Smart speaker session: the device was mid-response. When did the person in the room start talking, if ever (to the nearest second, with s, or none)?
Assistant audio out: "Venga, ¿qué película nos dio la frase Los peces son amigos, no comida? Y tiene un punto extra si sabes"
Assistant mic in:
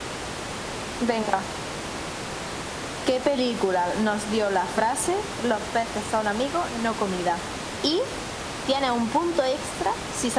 none